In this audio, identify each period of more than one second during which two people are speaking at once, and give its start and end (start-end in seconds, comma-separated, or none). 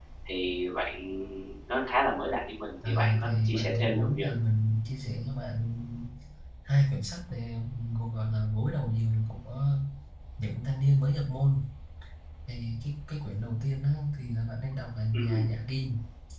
2.9-4.2